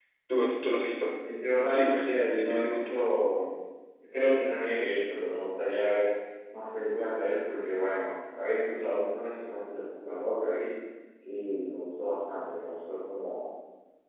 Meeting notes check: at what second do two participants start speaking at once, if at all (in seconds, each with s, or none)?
1.7 s